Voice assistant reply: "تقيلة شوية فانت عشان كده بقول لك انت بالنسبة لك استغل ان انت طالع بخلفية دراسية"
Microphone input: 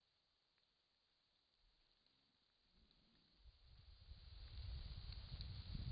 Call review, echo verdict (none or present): none